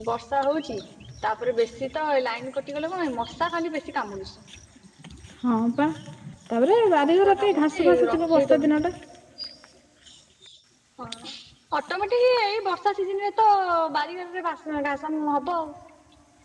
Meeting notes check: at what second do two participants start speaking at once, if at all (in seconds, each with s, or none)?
7.0 s